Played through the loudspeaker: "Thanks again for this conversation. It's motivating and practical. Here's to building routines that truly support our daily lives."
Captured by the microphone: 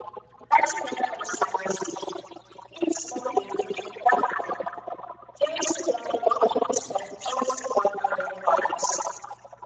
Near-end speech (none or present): none